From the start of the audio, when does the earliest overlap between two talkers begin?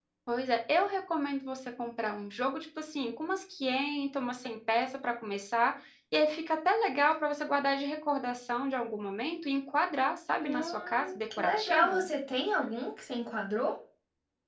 10.4 s

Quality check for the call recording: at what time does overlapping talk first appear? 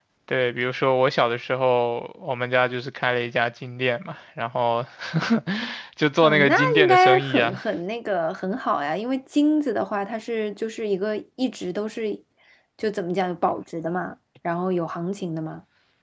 6.2 s

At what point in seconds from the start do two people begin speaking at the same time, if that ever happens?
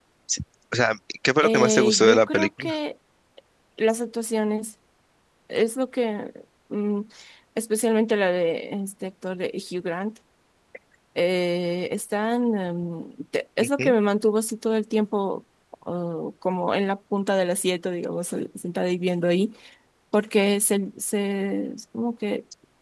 1.4 s

